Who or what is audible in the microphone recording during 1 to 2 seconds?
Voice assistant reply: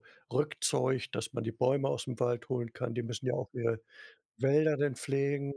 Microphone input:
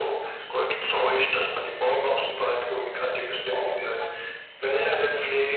both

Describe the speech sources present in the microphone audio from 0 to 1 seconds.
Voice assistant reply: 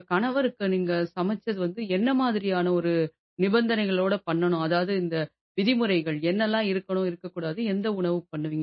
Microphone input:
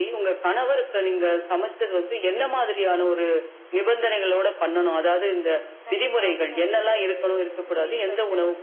echo only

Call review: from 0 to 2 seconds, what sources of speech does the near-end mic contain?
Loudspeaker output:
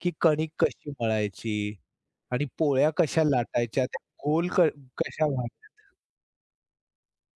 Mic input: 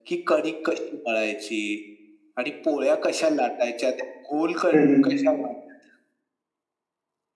echo only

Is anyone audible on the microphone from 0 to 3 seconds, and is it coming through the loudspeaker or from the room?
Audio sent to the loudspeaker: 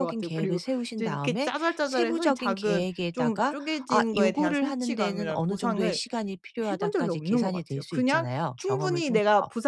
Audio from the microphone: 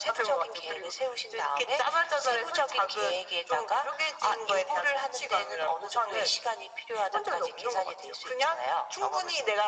echo only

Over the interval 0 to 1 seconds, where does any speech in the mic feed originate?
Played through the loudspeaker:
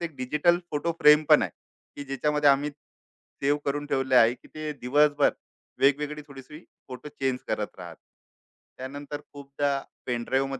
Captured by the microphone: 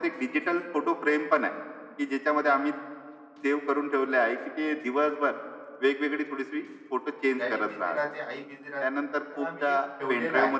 echo only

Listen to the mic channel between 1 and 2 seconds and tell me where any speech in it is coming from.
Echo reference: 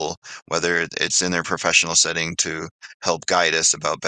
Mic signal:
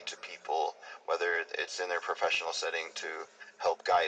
echo only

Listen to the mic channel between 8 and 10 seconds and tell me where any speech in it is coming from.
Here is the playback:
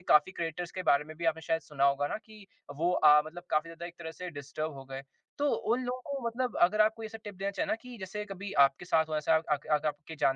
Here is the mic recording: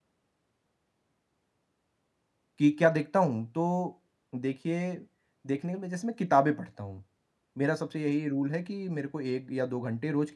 user only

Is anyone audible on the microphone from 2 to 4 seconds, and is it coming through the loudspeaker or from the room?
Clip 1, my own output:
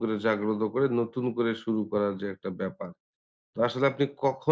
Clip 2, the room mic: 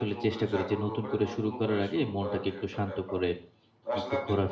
both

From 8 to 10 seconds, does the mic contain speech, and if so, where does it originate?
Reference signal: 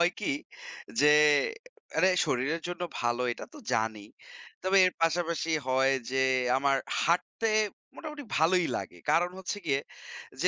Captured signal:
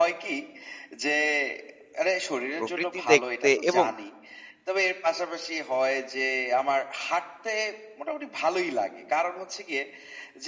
echo only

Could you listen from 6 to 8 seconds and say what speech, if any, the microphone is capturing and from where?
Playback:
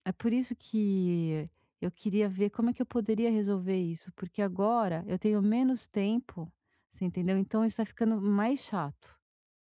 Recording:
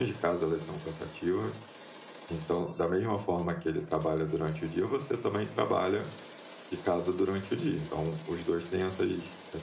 user only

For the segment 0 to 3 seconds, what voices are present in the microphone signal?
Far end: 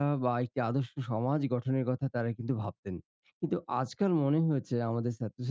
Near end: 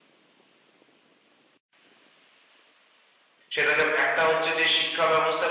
neither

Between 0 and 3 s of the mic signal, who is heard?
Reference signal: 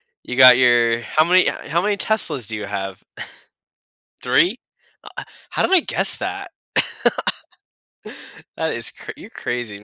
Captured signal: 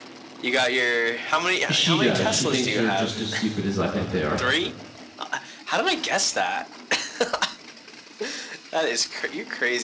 both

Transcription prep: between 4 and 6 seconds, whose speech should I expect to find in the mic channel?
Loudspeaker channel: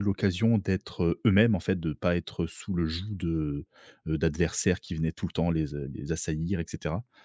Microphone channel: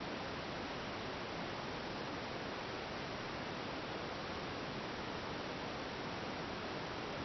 neither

